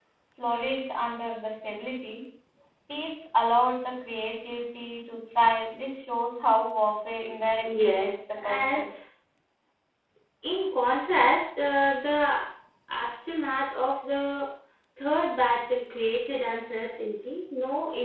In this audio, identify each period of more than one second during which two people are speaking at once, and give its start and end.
7.6-8.9

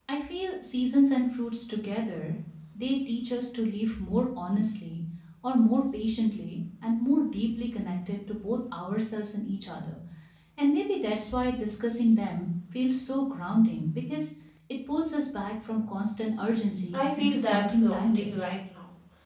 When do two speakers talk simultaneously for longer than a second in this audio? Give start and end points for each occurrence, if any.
16.9-18.5

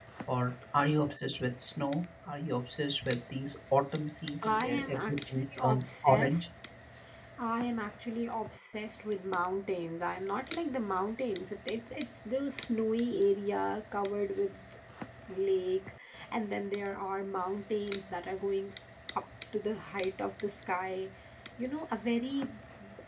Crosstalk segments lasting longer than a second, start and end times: 4.4-6.5

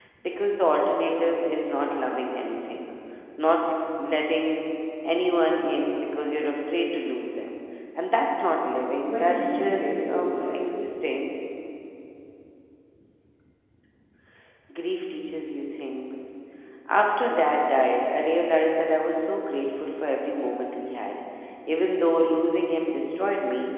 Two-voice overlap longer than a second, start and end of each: 9.0-10.8

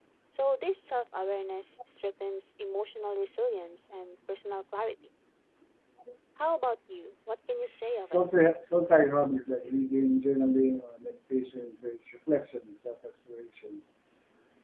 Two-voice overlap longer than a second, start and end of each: none

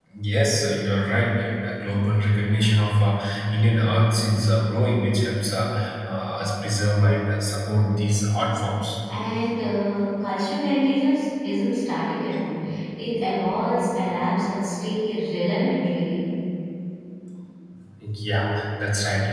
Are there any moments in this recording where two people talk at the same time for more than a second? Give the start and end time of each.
none

